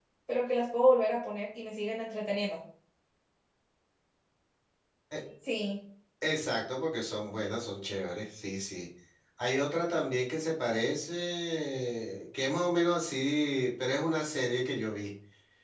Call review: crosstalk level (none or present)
none